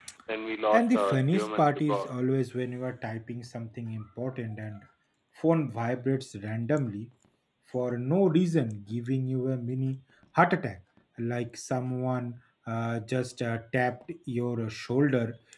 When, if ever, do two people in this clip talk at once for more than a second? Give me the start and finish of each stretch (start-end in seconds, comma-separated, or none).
0.7-2.1